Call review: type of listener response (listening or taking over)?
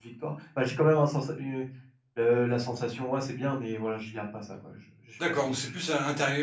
taking over